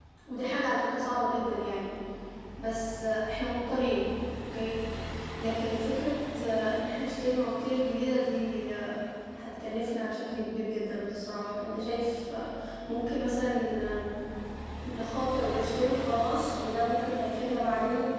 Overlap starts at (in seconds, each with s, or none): none